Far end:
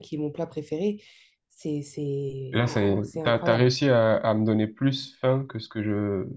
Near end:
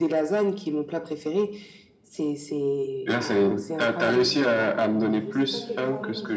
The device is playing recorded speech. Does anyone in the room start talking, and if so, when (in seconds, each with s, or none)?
4.0 s